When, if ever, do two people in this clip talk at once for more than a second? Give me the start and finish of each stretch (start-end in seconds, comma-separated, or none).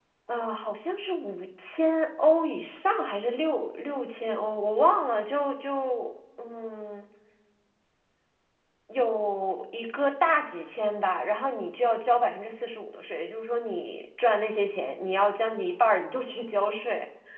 none